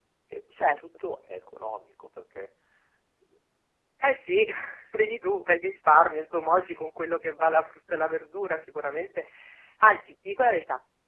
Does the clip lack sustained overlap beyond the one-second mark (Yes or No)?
Yes